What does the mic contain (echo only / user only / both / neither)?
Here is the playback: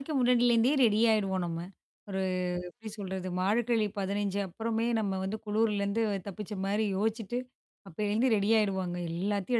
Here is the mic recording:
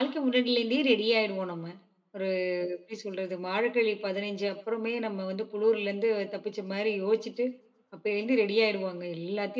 echo only